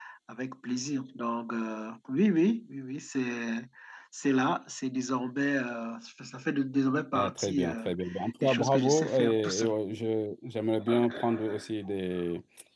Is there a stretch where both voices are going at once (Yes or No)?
Yes